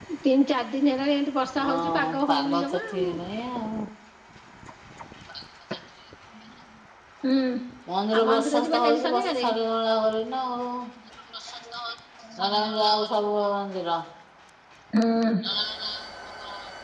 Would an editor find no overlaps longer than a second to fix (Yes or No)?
No